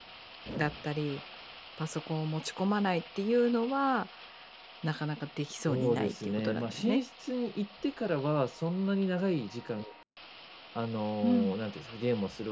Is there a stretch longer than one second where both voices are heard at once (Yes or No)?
Yes